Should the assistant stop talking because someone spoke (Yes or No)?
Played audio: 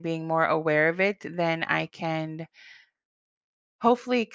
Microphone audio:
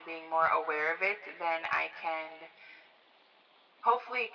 No